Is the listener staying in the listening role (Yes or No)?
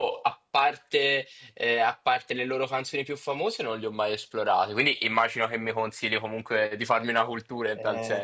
No